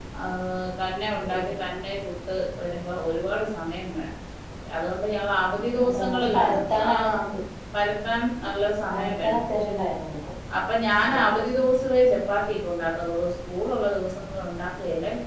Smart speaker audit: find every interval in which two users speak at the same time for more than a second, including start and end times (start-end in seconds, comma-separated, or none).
5.6-7.2